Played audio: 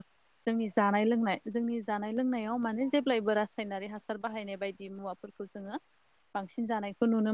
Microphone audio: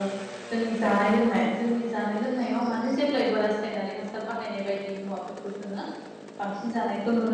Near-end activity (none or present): none